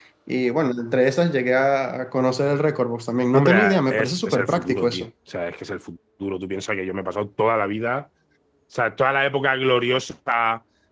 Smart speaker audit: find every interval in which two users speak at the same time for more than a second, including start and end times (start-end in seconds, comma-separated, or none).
3.3-5.1